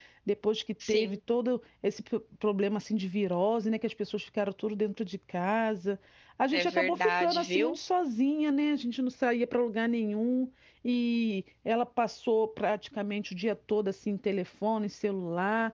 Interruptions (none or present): present